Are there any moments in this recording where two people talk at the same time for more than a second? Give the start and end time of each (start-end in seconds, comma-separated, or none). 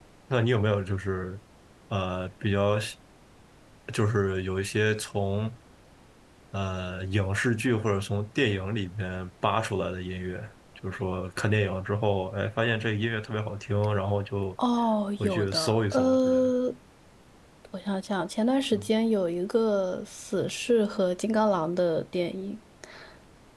15.2-16.5